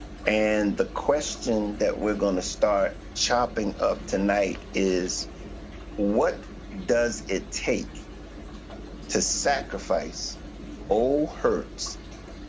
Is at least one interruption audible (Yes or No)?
No